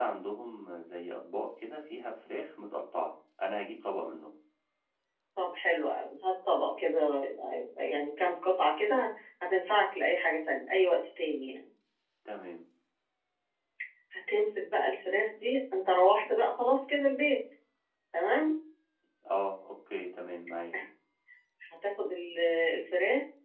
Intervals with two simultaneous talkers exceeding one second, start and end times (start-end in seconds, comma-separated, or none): none